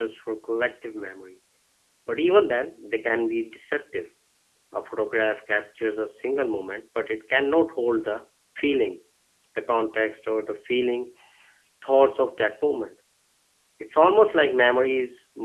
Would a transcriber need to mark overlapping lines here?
No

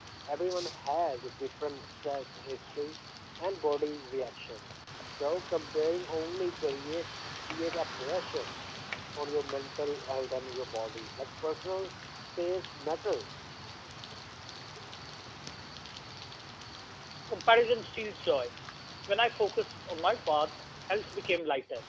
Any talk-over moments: No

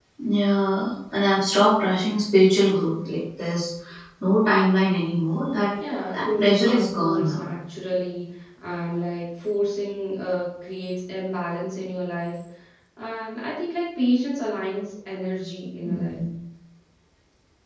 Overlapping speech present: Yes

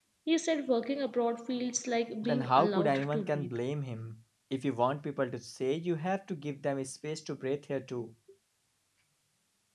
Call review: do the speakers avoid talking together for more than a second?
No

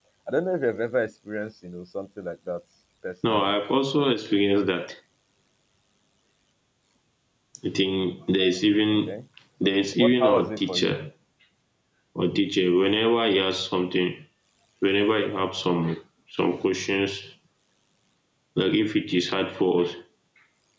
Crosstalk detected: Yes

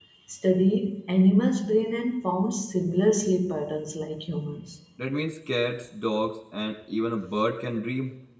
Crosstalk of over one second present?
No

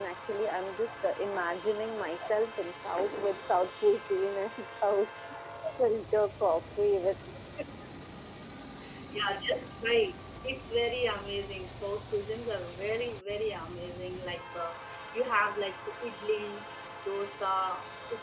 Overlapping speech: No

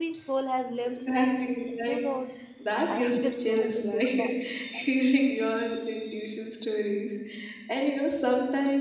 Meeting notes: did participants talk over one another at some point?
Yes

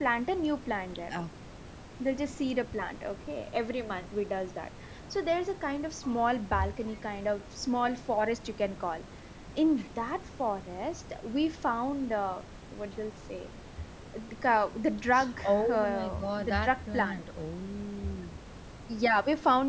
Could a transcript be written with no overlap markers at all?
No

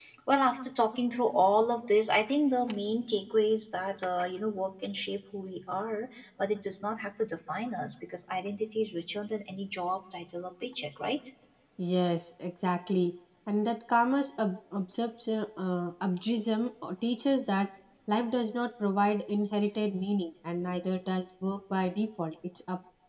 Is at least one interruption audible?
No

